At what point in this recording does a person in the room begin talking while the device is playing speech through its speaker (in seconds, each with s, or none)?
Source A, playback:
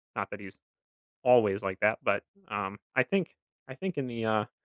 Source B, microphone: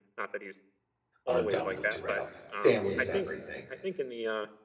1.3 s